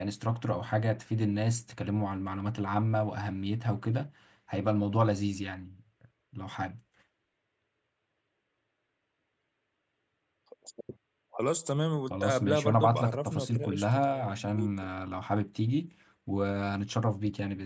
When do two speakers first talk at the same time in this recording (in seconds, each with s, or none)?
12.1 s